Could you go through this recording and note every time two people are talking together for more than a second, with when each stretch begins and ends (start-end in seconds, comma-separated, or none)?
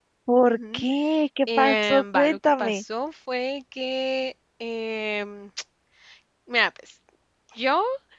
1.6-2.8